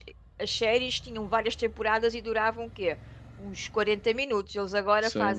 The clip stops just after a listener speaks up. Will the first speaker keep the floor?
No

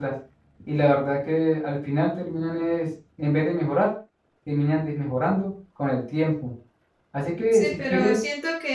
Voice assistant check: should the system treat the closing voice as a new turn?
Yes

